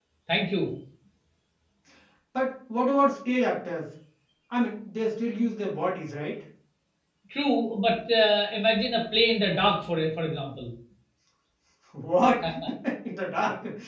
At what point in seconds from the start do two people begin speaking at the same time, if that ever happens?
none

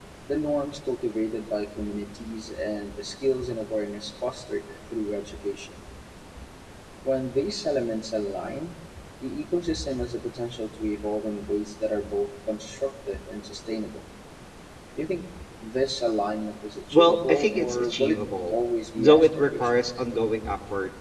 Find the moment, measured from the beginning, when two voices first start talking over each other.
16.9 s

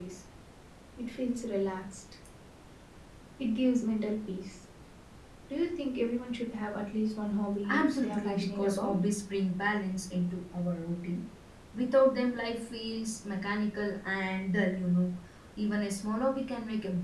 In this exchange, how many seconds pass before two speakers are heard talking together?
7.6 s

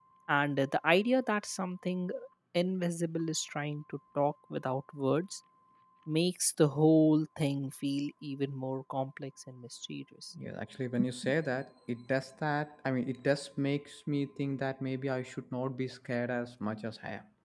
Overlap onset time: none

